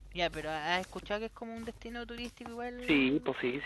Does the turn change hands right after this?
Yes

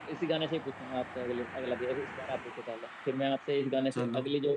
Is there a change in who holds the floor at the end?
No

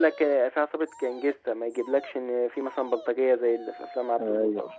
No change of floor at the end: No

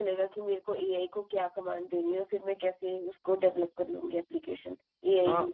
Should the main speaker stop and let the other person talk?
Yes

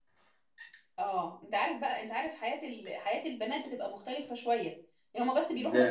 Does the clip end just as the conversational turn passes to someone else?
No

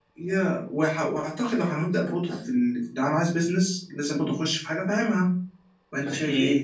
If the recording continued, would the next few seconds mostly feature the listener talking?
Yes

